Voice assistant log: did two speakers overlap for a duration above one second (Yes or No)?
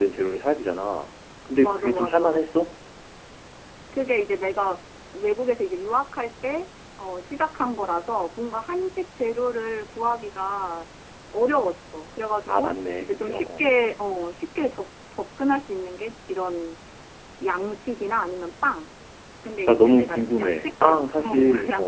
Yes